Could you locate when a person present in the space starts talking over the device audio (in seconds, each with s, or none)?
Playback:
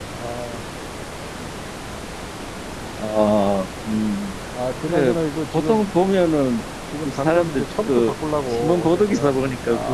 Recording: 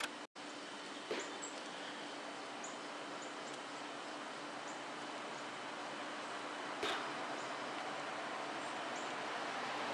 none